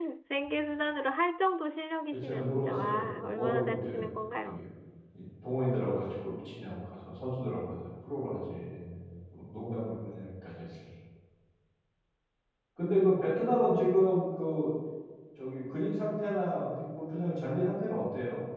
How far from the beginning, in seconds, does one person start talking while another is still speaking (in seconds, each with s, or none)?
2.1 s